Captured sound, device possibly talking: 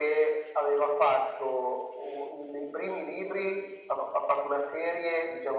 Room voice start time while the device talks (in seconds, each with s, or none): none